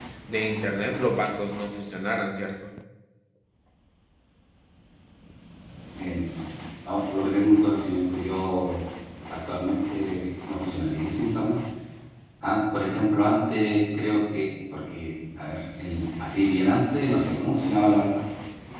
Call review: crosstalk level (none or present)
none